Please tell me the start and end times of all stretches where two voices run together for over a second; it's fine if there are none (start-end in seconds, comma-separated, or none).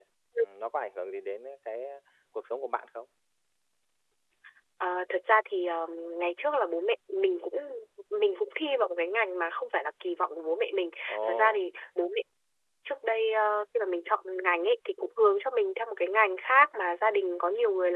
none